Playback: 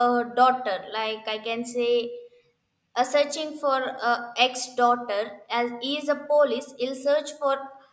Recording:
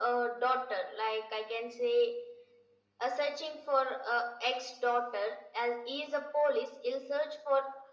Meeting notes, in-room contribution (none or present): none